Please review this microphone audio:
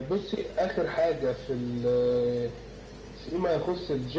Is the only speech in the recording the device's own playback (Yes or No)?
Yes